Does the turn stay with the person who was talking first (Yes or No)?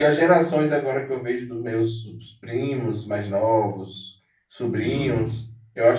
Yes